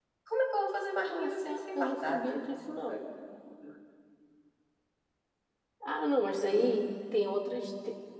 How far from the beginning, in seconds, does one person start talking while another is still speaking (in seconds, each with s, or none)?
1.1 s